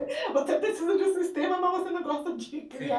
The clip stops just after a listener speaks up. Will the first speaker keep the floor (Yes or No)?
No